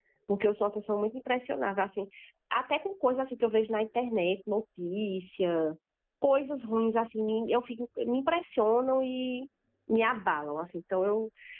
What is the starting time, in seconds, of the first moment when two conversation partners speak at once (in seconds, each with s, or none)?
none